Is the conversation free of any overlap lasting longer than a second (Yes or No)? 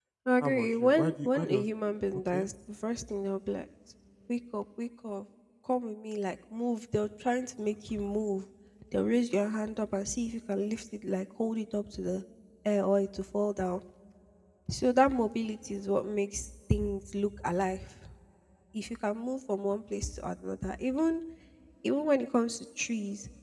No